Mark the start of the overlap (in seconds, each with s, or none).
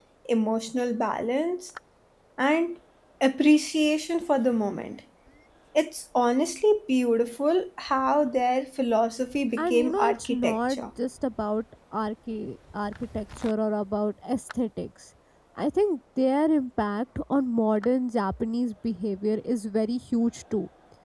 9.6 s